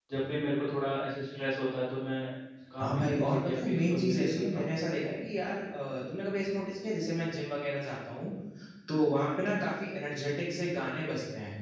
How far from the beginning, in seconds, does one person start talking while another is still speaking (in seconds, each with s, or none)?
2.8 s